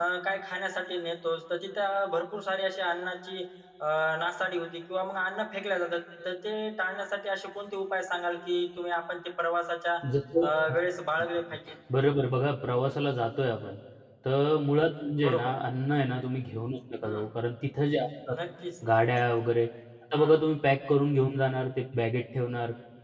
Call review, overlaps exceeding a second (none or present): none